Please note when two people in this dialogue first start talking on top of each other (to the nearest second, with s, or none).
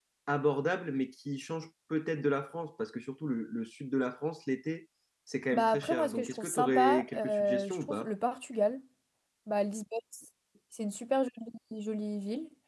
6 s